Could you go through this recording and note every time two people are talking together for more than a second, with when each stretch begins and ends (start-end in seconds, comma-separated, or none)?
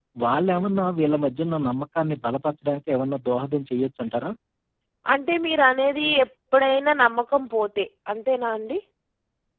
none